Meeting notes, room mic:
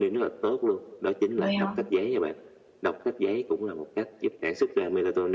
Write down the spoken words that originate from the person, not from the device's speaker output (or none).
Vậy hả?